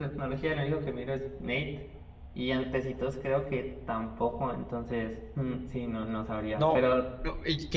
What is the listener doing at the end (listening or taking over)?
taking over